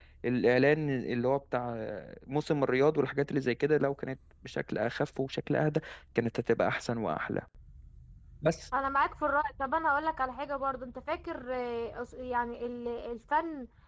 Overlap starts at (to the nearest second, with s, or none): none